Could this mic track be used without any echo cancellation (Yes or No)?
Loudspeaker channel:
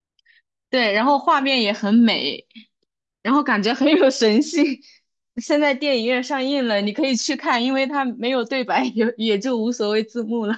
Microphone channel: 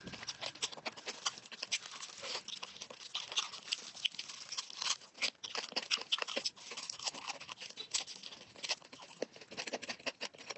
Yes